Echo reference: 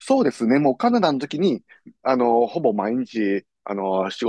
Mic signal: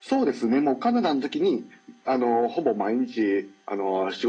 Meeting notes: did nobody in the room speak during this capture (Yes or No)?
Yes